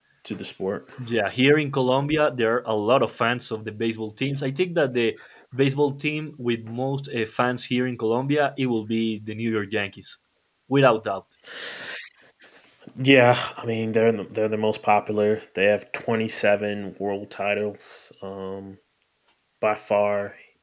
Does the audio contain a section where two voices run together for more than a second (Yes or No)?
No